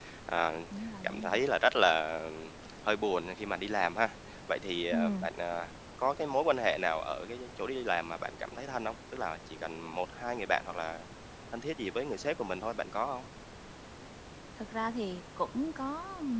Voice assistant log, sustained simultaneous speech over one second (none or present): none